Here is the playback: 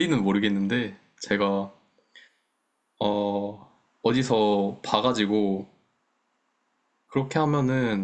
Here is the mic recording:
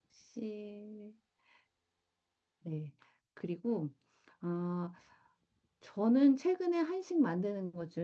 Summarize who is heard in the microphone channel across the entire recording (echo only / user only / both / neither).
user only